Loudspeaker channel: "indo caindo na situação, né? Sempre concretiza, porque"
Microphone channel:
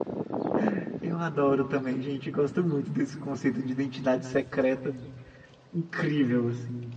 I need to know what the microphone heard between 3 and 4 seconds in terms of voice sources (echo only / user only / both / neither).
user only